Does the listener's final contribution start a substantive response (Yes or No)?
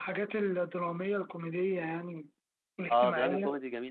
Yes